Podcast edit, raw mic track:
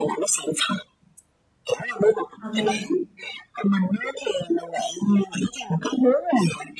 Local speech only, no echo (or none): ok, nè,